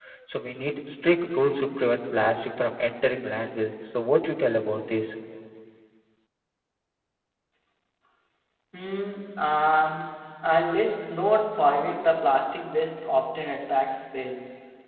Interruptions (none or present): none